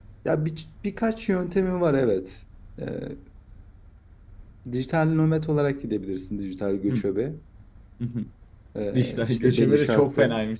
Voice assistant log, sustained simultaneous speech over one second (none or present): present